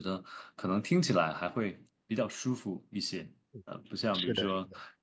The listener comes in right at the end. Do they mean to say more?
No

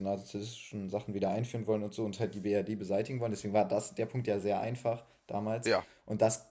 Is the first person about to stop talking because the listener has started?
No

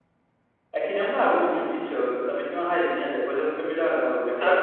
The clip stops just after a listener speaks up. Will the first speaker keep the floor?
No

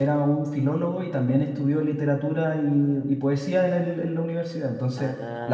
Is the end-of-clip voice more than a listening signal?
No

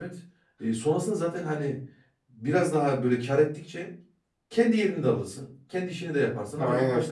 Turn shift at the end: No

